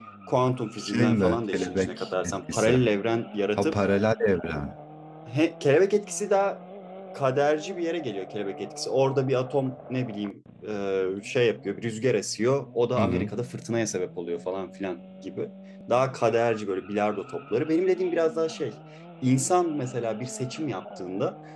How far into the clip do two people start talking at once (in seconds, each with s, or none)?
0.8 s